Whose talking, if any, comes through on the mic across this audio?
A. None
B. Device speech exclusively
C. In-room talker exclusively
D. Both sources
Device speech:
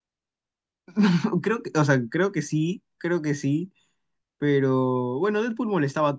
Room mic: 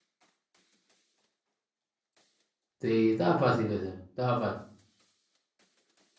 C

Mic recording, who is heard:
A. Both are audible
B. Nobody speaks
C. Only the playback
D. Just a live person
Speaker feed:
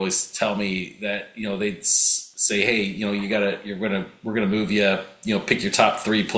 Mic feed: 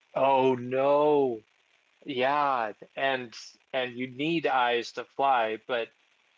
D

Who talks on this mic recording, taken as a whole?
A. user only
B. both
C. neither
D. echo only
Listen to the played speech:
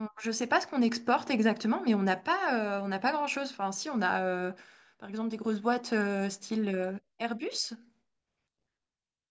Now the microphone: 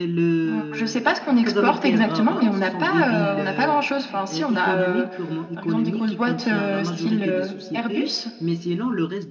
B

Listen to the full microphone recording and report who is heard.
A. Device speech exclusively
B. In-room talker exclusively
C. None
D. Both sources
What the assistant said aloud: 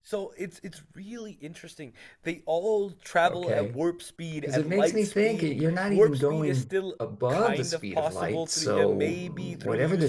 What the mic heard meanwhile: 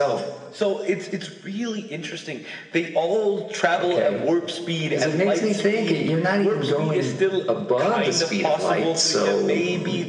A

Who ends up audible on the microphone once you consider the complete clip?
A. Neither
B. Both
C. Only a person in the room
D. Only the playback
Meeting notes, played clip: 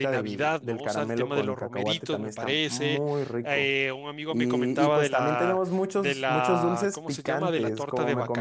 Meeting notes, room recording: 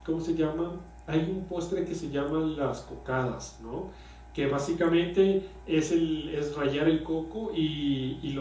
C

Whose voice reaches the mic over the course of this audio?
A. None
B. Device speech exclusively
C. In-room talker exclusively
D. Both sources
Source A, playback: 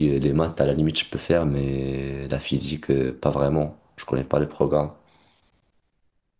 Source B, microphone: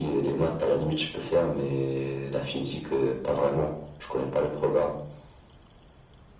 B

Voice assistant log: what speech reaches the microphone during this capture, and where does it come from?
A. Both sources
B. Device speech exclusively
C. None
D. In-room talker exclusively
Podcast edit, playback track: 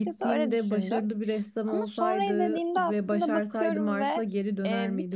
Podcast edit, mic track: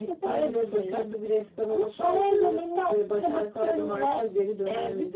B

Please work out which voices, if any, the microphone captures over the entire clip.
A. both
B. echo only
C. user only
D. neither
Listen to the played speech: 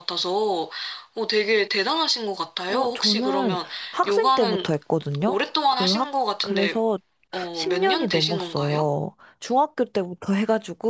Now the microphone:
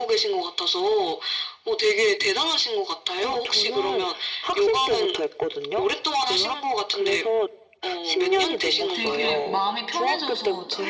A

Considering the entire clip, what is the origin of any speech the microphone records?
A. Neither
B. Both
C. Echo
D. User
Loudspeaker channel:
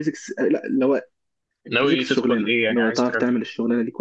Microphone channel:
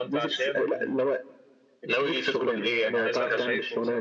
B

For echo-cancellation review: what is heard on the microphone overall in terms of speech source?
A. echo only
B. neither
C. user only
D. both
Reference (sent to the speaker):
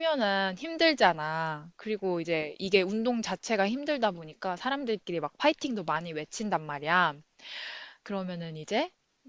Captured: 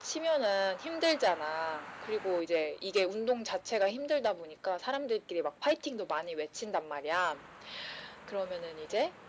A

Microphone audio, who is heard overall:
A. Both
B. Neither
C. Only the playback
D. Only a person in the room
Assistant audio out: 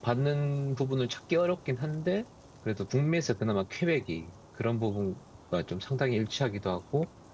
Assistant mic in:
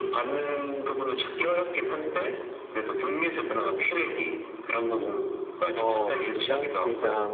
A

